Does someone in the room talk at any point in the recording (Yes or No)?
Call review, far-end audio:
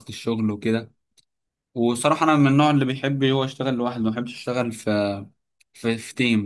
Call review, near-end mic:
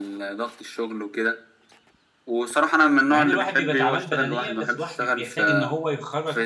Yes